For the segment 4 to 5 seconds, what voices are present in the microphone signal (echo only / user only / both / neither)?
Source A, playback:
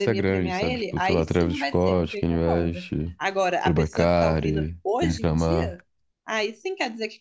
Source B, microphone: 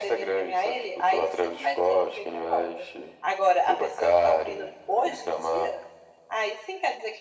echo only